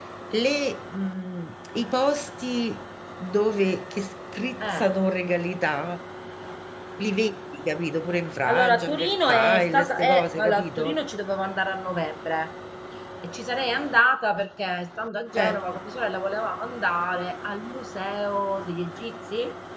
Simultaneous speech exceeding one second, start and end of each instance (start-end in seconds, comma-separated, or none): 8.5-11.0